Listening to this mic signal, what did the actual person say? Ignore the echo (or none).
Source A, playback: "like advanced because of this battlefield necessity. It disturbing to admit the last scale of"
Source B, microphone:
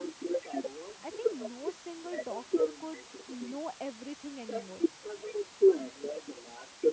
i think no single doctor could know everything anymore